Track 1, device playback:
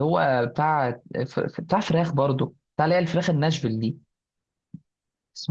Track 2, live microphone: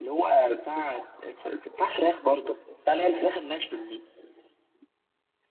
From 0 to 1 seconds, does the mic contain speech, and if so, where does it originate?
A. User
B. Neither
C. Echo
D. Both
C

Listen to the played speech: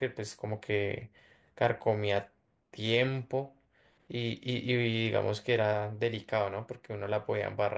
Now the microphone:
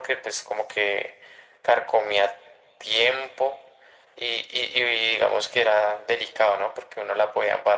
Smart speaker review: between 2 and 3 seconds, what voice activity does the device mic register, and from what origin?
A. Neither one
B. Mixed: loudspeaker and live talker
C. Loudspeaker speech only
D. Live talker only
C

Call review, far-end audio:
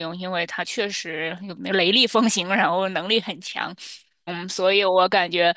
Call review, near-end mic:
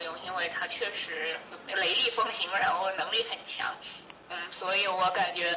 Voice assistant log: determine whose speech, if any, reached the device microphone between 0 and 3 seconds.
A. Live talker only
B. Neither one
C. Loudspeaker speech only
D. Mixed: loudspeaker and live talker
C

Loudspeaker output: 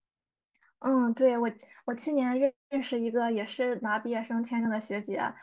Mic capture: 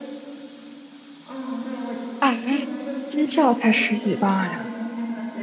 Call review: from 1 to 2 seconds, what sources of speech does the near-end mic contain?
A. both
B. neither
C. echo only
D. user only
C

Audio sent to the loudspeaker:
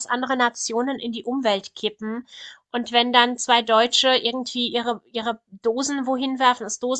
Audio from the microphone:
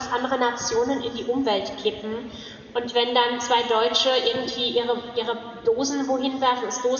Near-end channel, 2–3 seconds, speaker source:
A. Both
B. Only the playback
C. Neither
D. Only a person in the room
B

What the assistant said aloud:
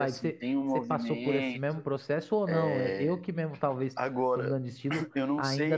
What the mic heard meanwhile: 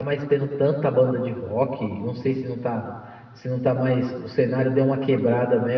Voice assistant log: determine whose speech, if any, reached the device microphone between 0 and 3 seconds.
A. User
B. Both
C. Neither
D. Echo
A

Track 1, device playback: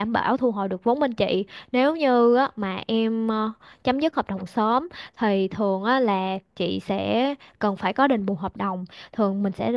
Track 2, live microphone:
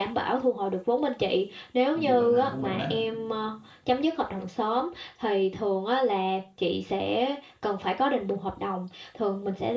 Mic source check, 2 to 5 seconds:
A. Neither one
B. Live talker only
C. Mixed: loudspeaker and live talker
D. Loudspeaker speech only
C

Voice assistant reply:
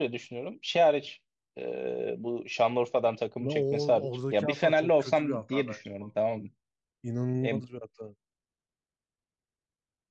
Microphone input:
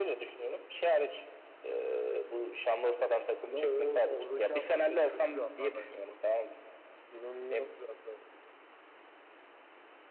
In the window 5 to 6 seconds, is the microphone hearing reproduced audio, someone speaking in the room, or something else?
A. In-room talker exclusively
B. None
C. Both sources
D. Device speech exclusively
D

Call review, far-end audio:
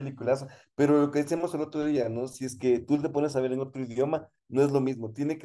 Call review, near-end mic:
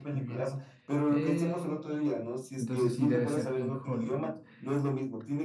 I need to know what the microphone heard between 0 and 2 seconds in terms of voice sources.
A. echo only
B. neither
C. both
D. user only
C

